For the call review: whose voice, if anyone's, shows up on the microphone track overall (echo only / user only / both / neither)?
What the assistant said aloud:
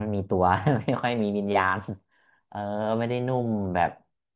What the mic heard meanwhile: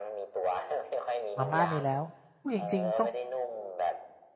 both